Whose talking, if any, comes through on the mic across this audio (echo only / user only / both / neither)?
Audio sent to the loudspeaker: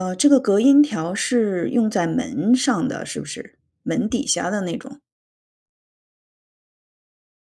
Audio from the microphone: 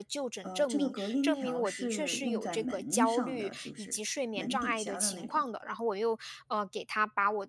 both